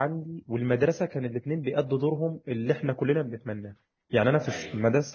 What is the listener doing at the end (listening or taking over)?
listening